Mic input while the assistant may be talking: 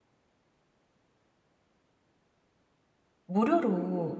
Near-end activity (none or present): present